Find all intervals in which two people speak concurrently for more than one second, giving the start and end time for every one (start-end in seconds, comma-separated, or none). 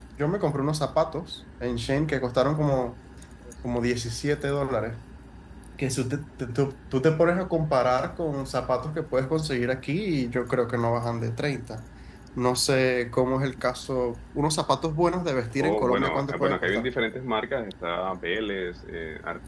15.6-16.9